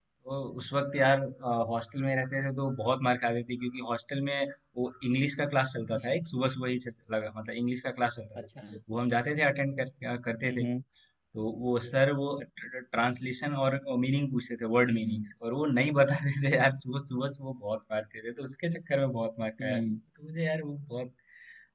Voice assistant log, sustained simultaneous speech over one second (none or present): none